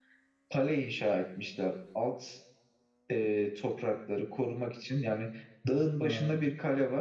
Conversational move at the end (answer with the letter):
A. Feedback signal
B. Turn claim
A